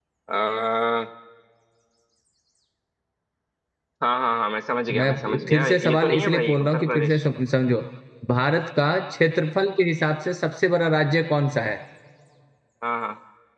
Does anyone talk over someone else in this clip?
Yes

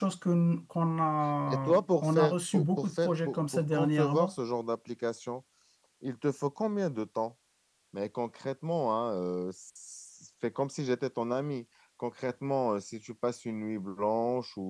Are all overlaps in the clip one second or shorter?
No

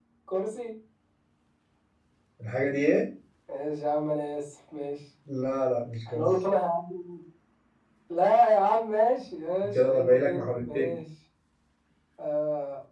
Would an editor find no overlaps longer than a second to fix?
No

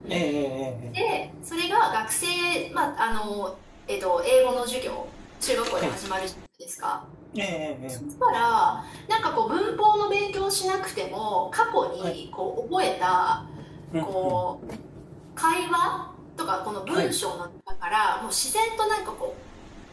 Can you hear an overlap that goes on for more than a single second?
No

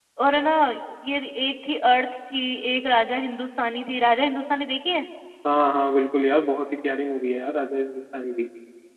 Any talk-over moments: No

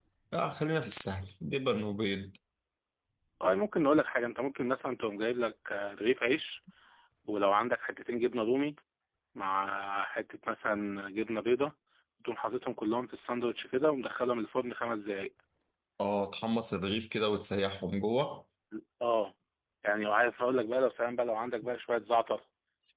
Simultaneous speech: No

